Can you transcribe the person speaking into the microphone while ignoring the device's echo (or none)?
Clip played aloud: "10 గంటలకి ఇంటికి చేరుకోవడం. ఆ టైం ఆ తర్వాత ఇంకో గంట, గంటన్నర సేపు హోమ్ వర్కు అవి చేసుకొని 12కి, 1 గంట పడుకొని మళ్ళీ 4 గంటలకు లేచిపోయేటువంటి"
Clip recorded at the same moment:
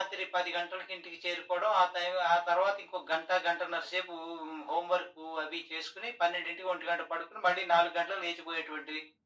none